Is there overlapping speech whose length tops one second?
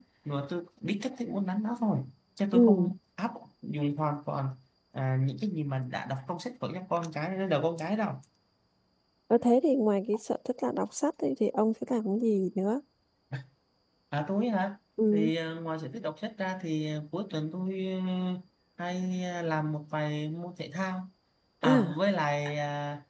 No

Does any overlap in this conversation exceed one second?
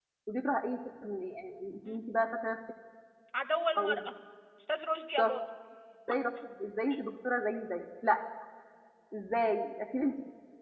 No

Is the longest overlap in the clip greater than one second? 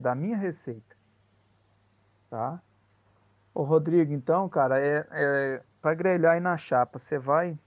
No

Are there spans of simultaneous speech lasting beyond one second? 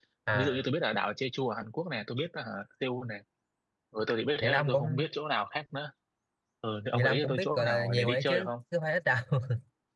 Yes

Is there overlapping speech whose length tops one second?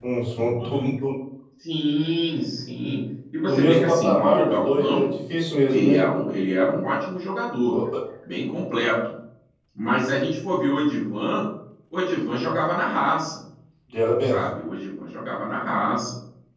Yes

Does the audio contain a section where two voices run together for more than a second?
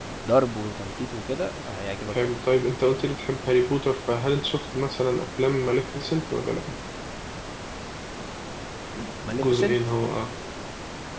No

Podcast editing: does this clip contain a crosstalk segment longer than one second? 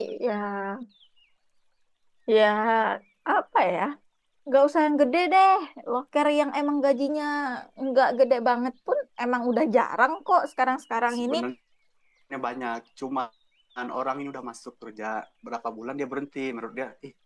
No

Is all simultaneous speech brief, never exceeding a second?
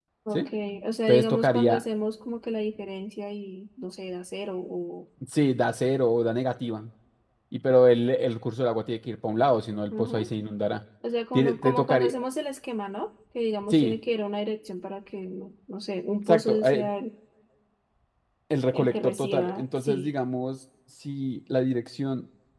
No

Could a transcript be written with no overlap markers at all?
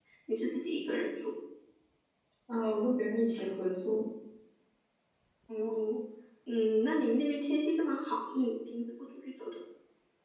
Yes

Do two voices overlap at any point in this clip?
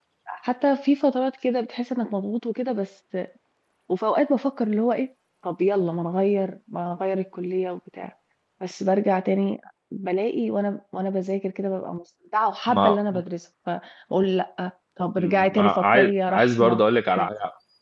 Yes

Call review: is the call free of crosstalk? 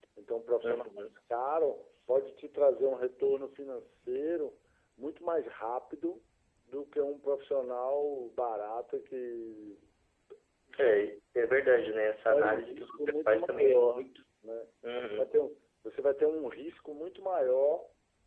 No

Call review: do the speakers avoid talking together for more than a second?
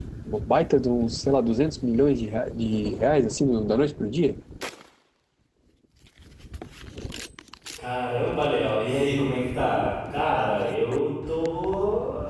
Yes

